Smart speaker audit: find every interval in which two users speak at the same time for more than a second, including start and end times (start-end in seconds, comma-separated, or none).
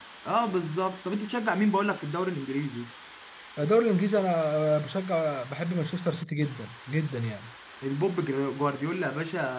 none